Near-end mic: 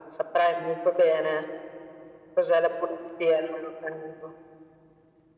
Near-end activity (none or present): none